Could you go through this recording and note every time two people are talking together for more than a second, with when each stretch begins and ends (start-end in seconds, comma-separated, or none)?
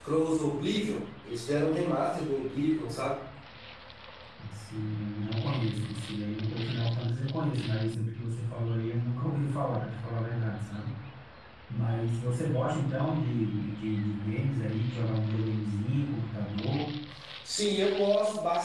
none